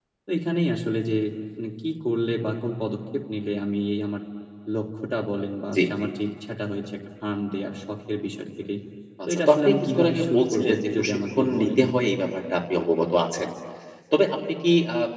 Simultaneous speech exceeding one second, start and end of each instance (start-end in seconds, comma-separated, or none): 9.3-11.8